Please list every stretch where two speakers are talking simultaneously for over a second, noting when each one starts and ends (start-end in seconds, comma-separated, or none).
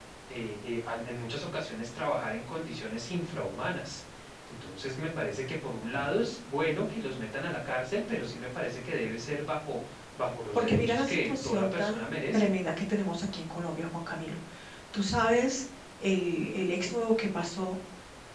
10.6-12.5